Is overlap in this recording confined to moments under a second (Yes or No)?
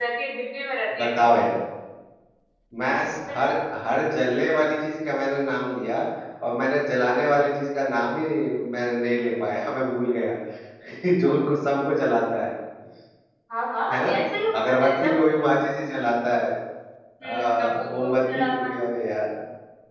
No